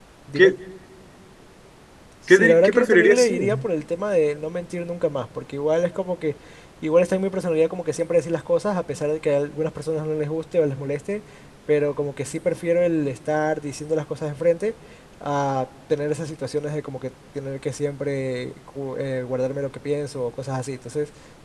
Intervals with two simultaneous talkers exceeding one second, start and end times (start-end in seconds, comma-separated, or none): 2.3-3.5